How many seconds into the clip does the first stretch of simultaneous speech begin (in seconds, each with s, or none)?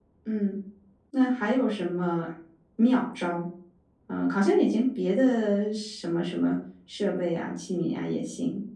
none